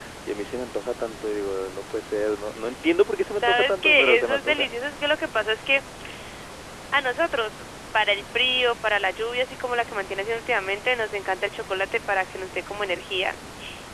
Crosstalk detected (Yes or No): Yes